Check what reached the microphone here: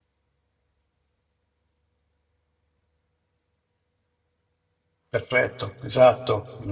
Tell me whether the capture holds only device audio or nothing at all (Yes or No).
No